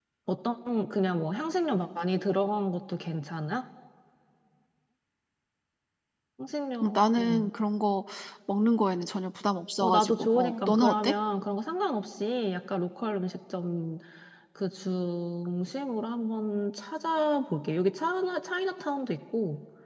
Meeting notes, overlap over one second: present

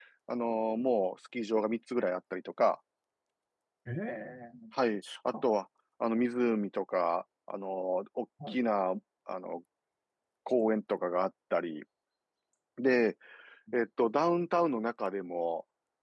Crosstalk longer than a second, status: none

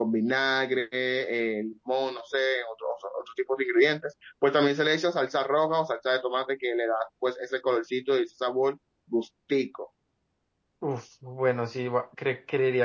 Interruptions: none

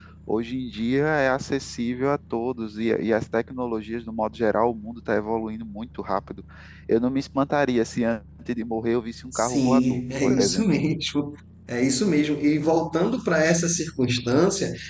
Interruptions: present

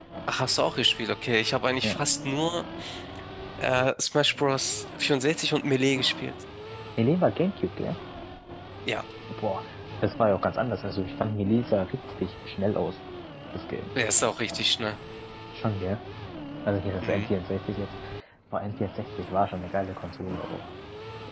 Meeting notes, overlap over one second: none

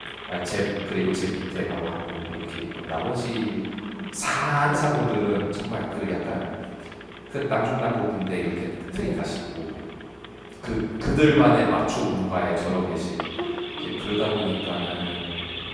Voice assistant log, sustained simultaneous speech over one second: none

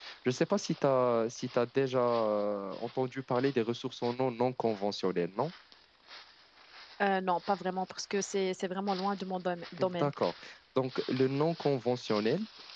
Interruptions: none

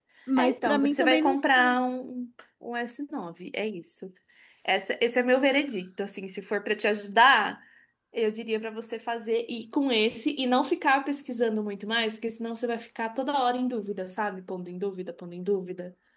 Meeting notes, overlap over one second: present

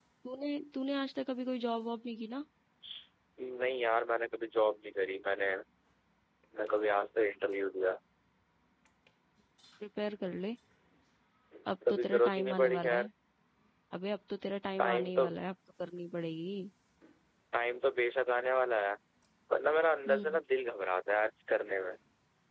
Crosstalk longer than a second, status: present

